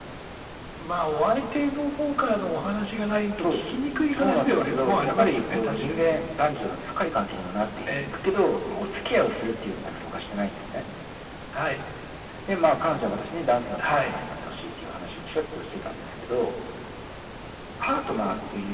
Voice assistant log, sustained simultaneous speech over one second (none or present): present